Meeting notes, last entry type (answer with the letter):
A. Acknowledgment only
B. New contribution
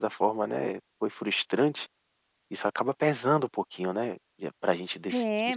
B